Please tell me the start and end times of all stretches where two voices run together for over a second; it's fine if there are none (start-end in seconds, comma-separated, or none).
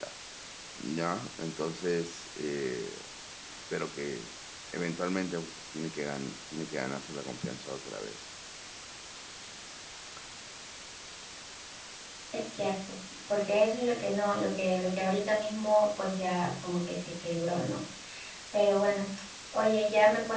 none